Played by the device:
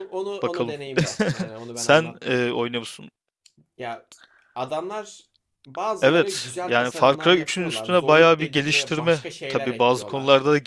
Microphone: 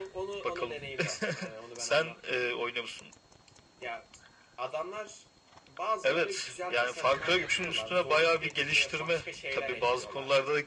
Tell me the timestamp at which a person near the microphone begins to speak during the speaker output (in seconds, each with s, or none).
none